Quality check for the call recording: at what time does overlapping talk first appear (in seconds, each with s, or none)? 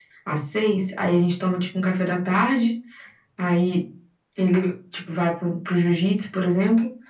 none